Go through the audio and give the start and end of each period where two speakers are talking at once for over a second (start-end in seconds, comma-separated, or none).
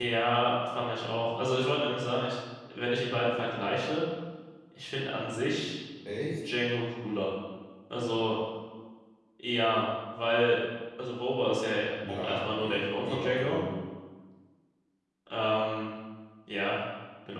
12.2-13.6